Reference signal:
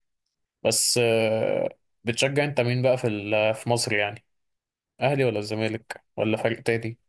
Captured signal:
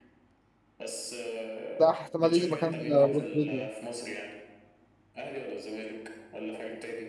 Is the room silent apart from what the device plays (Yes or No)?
No